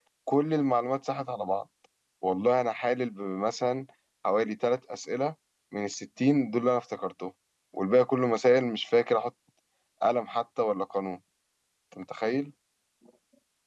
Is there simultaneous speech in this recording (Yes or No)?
No